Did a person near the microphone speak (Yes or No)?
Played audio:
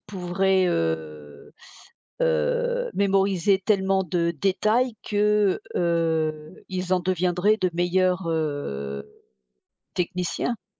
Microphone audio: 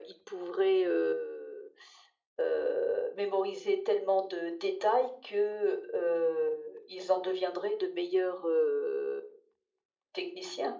No